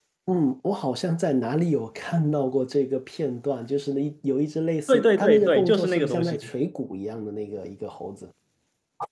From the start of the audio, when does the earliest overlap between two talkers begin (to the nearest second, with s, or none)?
5 s